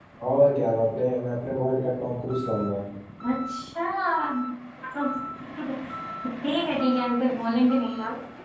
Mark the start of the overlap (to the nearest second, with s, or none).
none